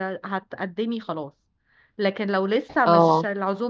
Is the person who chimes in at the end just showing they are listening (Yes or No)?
Yes